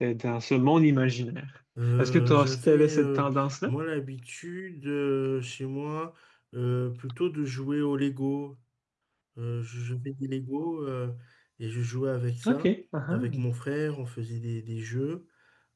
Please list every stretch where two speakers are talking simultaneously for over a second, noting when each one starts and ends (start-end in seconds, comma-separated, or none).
2.0-3.2